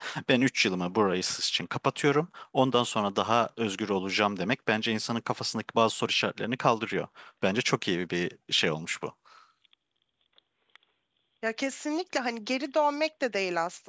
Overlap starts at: none

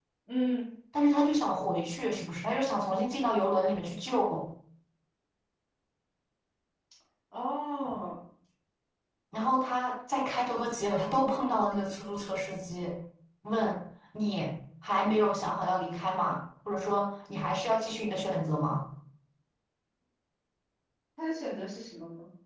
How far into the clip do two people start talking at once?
none

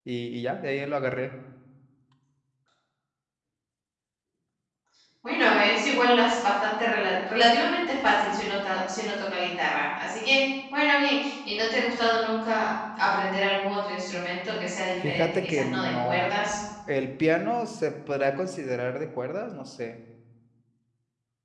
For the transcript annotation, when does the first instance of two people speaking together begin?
15 s

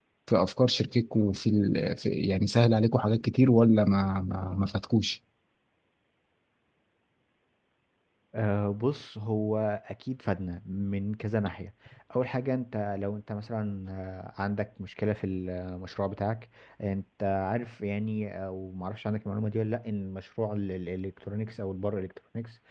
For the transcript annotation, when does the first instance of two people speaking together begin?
none

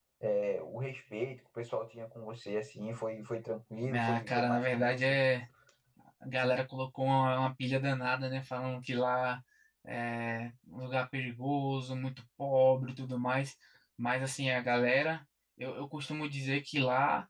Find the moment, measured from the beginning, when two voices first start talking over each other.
4 s

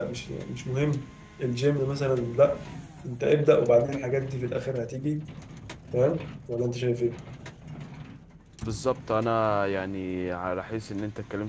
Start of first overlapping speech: none

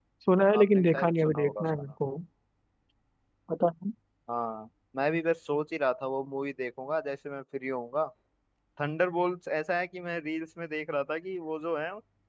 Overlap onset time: 1 s

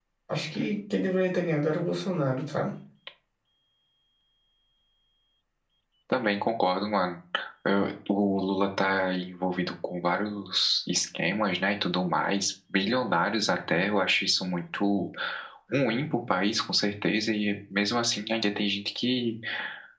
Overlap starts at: none

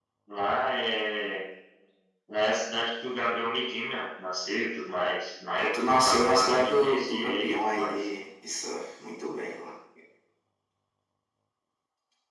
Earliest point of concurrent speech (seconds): 6 s

